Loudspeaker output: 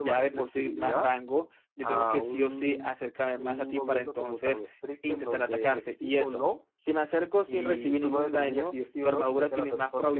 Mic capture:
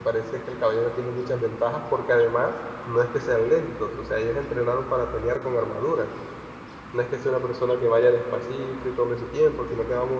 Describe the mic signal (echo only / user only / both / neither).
user only